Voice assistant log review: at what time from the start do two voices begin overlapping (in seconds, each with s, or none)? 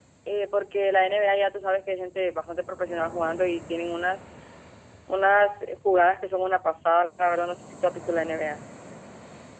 none